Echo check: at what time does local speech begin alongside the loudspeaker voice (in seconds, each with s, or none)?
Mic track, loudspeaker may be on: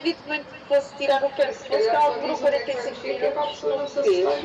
none